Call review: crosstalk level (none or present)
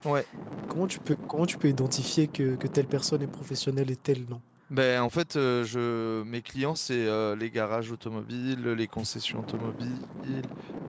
none